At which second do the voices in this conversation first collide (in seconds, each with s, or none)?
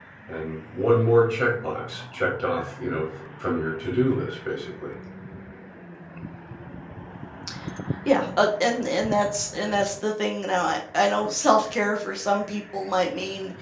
none